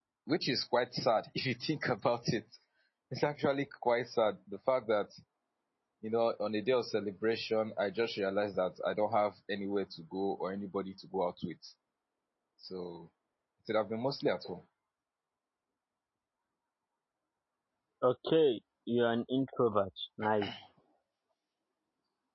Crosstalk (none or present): none